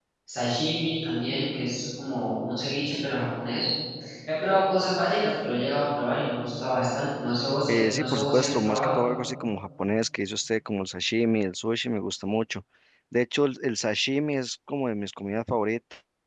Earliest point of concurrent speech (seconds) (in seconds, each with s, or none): 7.7 s